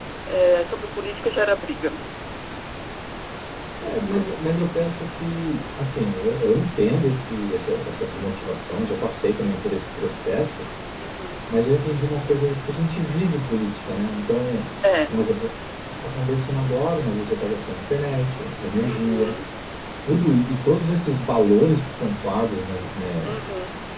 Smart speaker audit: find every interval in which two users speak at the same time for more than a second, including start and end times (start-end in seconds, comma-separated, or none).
none